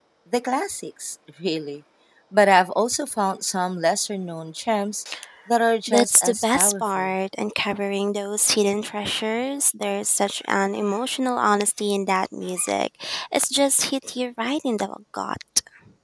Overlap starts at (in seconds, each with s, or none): 5.9 s